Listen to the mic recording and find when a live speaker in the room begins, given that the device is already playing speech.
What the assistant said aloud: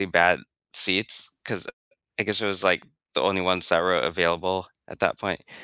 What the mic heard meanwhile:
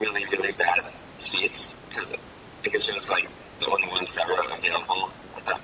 none

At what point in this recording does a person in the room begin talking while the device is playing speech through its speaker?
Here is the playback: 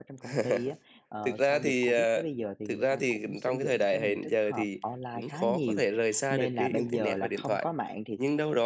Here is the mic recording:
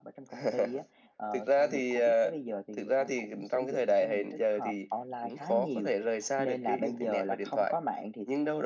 none

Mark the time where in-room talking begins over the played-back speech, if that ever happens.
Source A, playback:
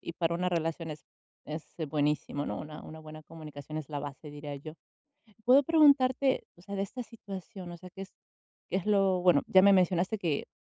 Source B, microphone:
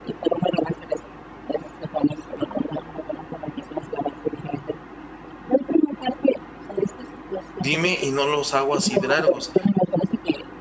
8 s

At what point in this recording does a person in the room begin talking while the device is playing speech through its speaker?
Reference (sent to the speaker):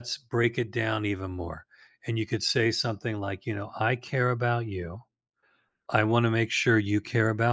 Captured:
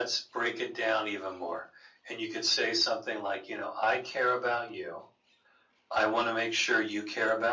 none

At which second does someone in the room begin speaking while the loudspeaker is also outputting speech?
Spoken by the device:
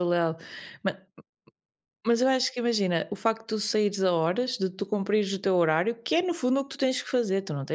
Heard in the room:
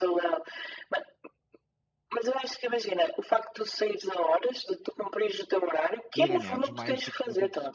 6 s

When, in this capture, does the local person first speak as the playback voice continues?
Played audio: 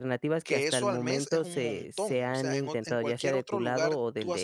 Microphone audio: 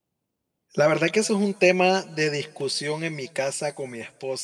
1 s

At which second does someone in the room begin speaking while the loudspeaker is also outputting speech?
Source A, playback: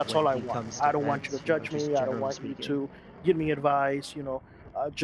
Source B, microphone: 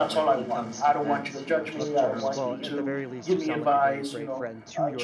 2 s

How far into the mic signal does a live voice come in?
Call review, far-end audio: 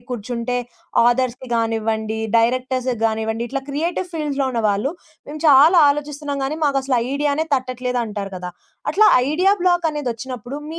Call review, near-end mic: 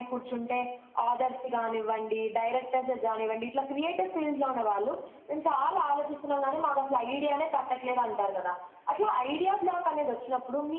none

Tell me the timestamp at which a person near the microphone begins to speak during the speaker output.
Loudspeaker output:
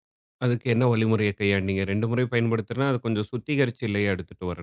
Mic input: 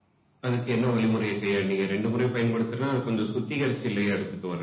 none

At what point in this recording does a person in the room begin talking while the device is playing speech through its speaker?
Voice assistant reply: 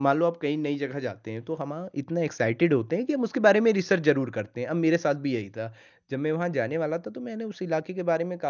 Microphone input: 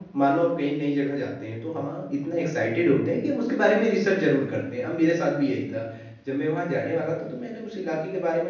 none

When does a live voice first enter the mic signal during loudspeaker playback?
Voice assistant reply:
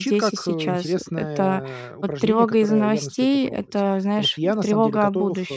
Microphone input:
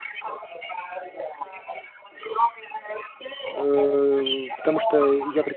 4 s

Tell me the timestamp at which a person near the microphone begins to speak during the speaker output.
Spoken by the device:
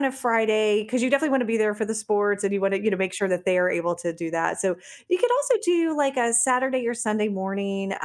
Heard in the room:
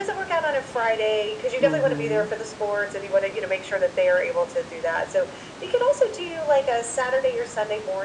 2 s

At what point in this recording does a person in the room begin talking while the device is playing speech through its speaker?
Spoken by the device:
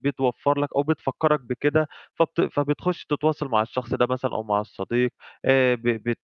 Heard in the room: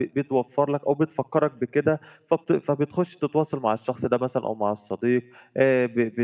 none

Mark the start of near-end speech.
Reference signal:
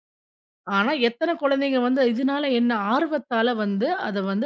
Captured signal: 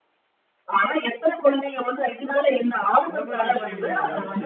3 s

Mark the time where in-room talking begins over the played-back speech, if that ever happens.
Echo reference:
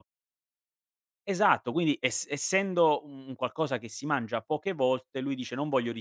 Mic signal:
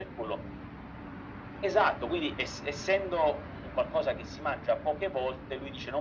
none

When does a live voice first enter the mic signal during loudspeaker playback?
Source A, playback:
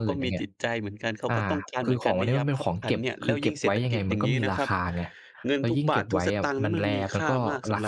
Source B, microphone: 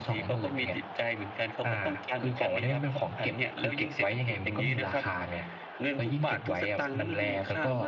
none

